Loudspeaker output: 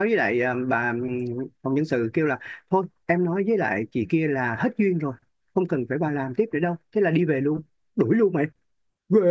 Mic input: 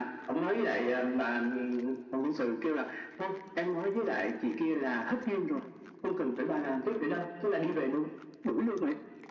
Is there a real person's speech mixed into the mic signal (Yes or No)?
No